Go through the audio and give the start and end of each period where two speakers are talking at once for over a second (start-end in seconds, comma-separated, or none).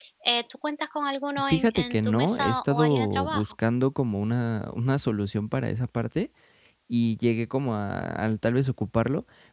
1.5-3.5